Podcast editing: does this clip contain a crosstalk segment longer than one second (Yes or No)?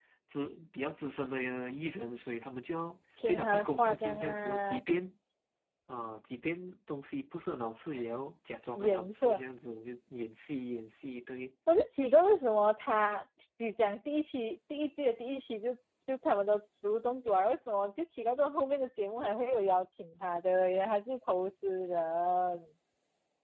Yes